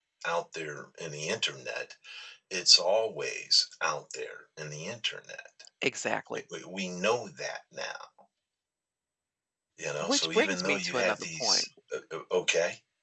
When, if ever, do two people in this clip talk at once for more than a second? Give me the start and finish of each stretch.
10.0-11.6

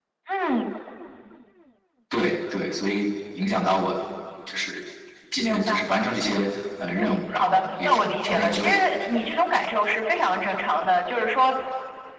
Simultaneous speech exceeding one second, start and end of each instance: 7.0-8.7

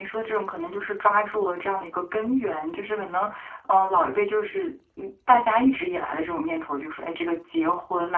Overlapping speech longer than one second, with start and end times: none

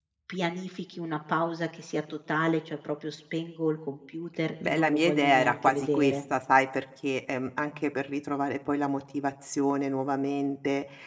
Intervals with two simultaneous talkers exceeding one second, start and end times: 4.7-6.2

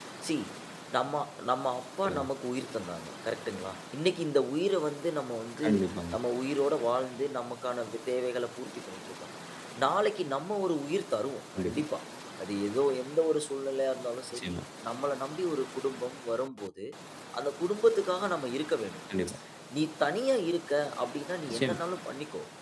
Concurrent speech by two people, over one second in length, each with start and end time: none

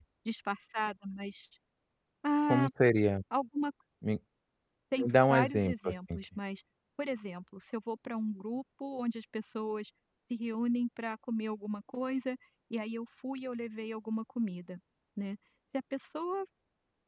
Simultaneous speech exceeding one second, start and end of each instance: 5.0-6.2

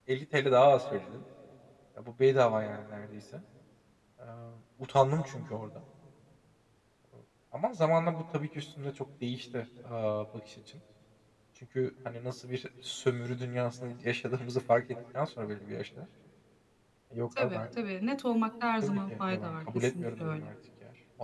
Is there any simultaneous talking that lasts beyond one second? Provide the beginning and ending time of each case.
18.8-20.4

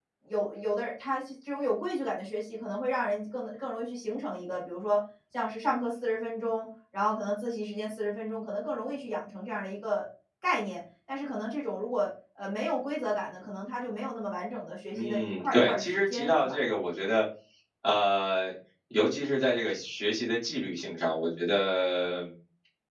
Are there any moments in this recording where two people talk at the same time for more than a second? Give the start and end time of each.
14.9-16.6

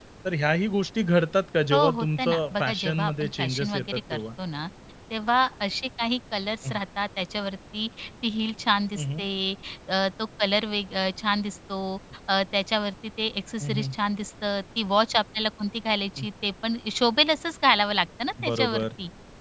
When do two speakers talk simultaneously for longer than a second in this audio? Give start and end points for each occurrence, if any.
1.7-4.2

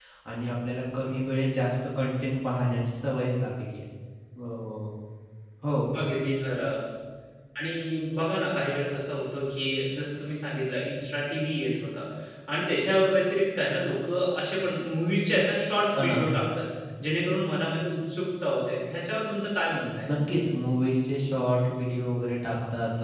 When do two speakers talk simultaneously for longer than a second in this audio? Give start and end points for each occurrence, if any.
none

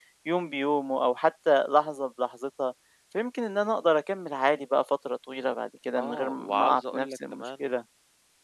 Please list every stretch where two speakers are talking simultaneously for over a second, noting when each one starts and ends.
6.0-7.4

